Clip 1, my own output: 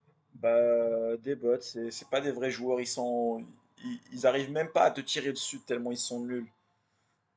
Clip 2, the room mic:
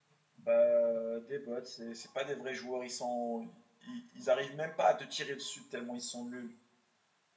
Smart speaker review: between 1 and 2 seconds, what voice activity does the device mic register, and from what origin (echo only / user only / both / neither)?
echo only